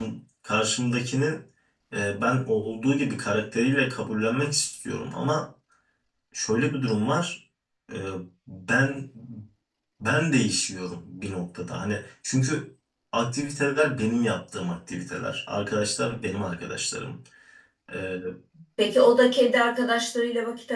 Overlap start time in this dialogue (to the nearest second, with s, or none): none